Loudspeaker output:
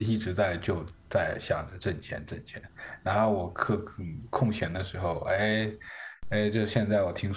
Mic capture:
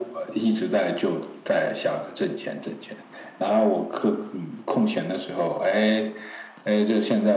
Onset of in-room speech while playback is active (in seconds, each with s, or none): none